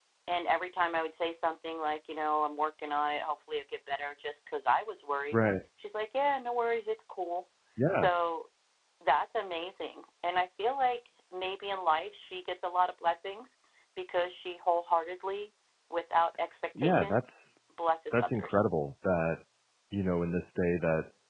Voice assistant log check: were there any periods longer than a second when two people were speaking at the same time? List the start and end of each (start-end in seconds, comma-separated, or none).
none